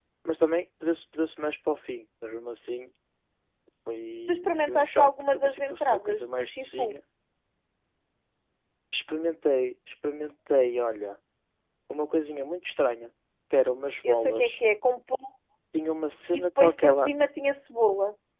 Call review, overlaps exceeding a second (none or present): present